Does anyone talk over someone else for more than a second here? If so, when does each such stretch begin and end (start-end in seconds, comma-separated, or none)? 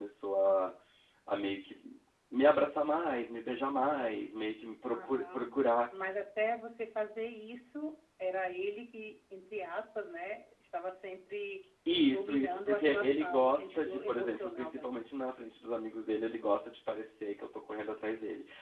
12.1-14.9